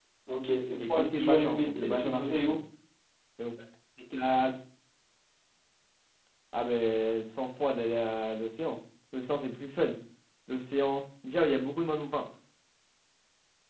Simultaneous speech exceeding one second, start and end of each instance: 0.8-2.6

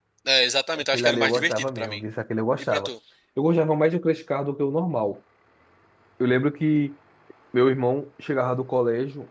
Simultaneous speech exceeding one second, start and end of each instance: 0.7-2.0

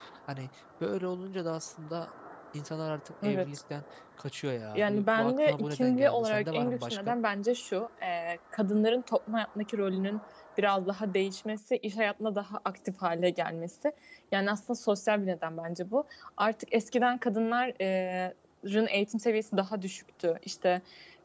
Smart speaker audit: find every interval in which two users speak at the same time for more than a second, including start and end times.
4.8-7.1

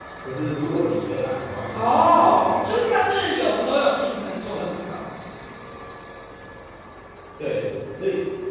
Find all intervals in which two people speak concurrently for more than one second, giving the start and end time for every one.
1.7-3.1

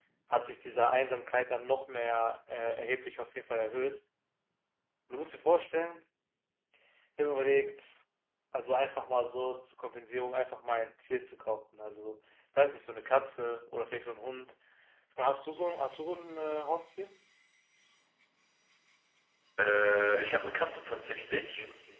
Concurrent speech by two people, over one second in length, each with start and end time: none

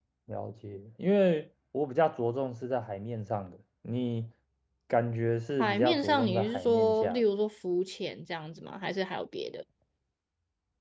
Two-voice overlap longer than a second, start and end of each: 5.6-7.2

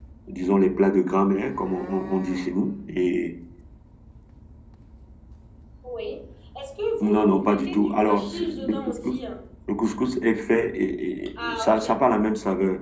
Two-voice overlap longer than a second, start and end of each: 7.0-9.2

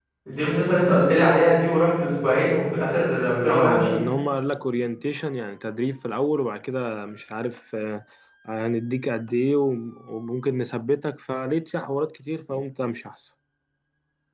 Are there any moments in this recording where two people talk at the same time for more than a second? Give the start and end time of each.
none

